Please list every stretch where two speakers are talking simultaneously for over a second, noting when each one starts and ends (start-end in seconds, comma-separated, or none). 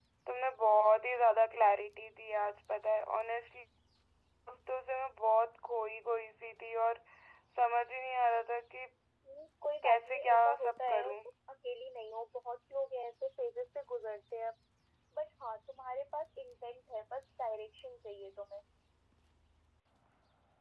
9.8-11.2